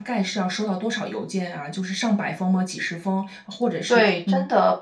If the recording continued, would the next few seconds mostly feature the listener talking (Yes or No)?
Yes